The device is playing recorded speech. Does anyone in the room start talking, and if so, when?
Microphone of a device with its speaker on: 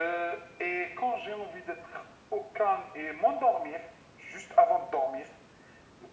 none

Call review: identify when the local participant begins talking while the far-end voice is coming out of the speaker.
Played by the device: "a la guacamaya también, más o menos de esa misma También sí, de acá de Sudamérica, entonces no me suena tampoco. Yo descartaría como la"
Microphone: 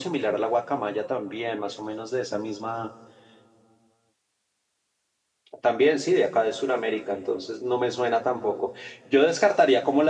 none

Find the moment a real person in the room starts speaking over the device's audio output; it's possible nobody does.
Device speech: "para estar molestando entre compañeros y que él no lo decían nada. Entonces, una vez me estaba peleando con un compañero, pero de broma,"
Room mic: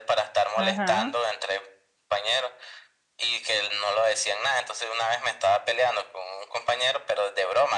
0.6 s

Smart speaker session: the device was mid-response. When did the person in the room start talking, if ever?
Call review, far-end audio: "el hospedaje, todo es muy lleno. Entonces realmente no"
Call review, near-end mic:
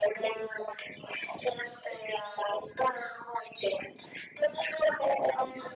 none

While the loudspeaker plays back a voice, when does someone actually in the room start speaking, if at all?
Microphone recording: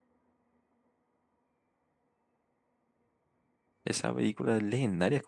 3.8 s

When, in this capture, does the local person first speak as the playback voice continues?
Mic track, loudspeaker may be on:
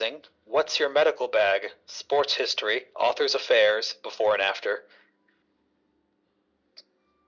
none

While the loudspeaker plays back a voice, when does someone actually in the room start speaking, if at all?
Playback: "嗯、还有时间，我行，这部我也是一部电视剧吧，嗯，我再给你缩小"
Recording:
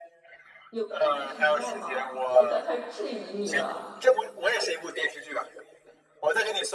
0.7 s

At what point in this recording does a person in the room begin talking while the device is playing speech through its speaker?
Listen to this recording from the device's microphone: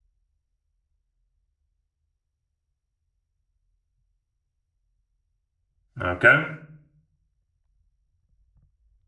6.0 s

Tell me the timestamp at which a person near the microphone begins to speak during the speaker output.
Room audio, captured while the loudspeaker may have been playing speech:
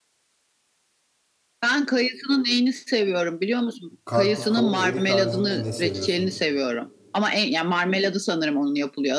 4.0 s

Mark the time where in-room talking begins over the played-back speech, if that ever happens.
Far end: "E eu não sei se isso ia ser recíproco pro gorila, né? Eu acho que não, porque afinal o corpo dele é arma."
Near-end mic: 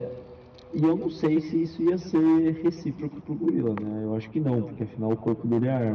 none

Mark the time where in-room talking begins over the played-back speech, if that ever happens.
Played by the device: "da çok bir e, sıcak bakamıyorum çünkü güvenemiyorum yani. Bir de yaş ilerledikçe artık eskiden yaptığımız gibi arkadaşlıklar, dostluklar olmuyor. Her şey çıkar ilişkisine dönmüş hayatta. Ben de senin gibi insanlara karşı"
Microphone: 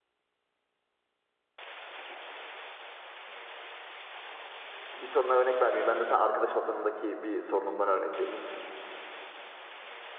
4.9 s

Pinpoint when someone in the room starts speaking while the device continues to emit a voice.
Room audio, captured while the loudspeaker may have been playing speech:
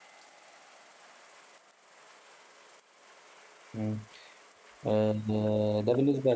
3.7 s

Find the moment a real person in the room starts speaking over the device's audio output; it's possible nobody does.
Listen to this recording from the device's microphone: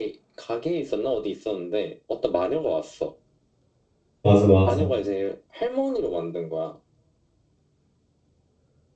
4.2 s

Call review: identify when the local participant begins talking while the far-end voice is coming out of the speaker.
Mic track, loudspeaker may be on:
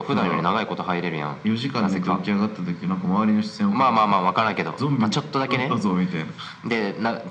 none

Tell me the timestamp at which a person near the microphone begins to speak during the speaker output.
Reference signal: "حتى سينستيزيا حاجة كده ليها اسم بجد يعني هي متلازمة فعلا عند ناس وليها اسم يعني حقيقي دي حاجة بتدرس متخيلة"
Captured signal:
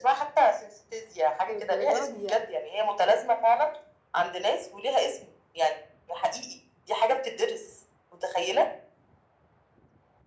1.5 s

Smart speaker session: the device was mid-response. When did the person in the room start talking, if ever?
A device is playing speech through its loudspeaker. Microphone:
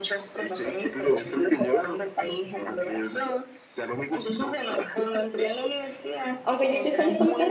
6.4 s

